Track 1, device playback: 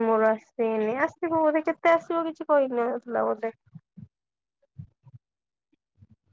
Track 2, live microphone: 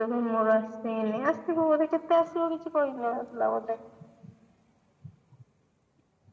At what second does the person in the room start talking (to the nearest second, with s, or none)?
none